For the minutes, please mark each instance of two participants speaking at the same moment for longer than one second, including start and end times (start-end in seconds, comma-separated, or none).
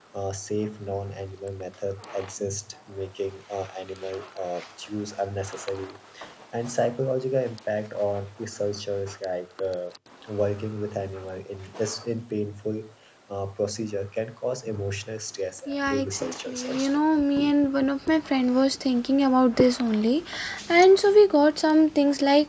15.7-17.0